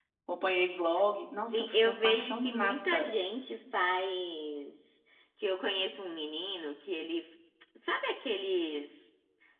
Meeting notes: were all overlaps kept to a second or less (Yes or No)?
No